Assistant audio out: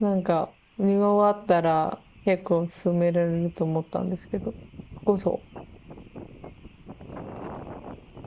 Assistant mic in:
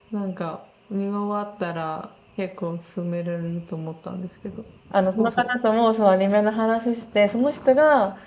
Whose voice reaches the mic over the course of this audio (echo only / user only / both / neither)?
both